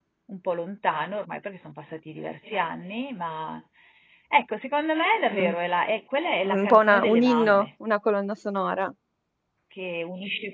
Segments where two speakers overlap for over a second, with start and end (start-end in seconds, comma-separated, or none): 6.5-7.7